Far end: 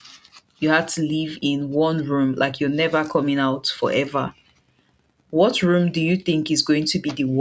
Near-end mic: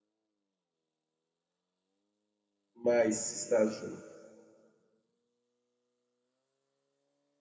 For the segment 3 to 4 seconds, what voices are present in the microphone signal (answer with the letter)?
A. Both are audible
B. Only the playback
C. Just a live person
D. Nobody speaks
C